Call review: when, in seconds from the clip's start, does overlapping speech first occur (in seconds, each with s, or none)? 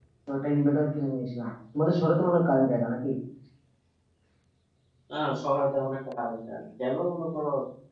none